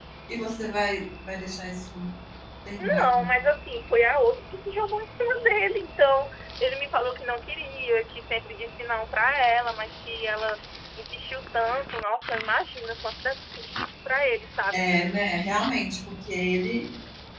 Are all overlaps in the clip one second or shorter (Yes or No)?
Yes